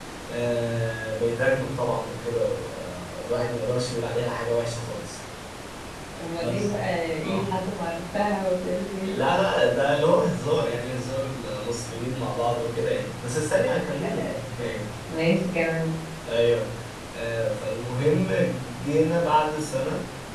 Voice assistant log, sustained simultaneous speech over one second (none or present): none